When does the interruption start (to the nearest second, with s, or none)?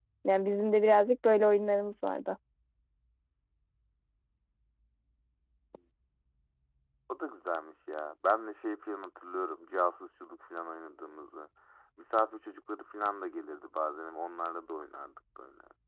none